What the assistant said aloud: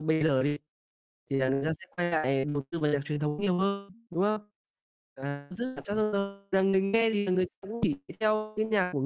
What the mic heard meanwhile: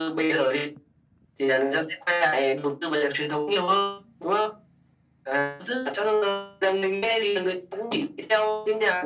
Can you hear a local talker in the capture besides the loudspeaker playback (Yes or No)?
No